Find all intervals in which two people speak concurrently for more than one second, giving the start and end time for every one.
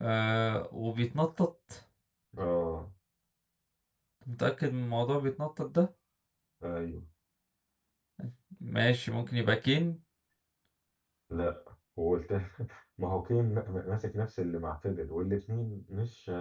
none

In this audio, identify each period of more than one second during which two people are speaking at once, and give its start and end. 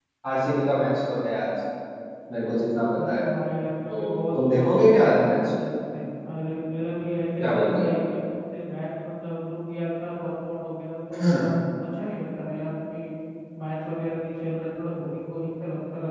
3.9-5.4

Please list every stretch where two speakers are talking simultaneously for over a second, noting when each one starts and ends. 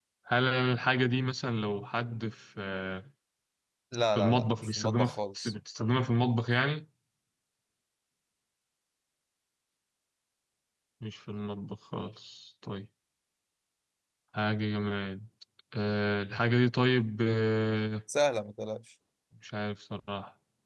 4.2-5.5

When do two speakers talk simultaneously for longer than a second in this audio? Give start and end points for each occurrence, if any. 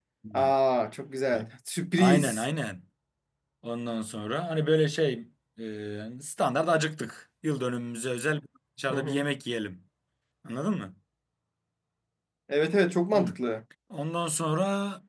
none

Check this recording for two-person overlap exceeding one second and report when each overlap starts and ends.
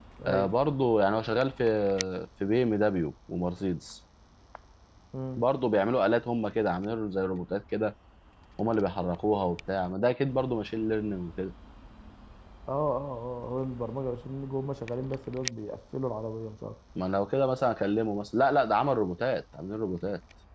none

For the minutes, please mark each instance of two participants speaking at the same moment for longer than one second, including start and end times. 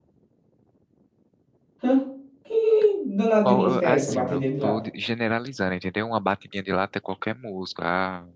3.4-4.8

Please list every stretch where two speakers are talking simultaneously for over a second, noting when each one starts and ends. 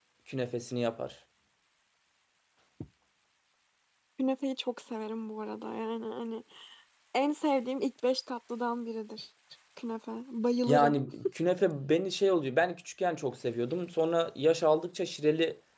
none

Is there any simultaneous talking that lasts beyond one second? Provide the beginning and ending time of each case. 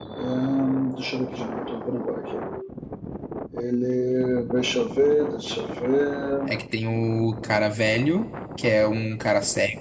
none

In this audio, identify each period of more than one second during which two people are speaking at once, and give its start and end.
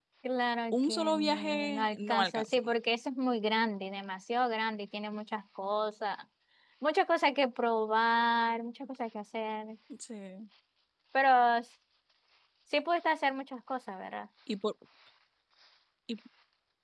0.7-2.6

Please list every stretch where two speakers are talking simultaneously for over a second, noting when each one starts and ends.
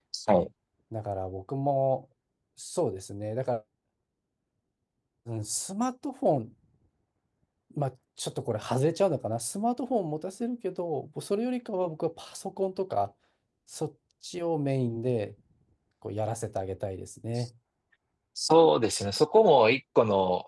none

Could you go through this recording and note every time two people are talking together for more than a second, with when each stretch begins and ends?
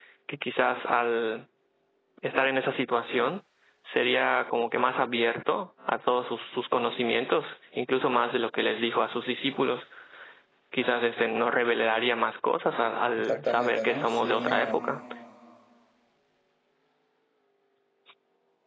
13.3-14.8

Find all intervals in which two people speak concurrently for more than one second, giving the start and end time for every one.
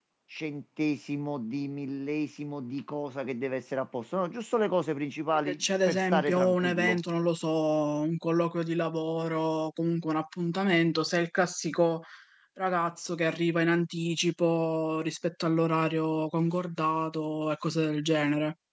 5.3-7.0

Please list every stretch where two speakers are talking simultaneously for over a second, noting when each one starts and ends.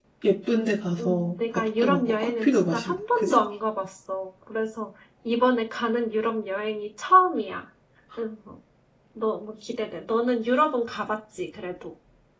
1.0-3.5

